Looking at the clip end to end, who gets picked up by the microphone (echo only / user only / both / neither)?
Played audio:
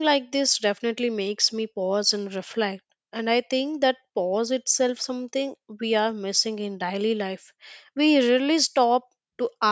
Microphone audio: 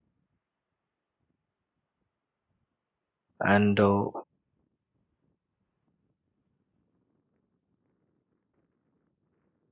user only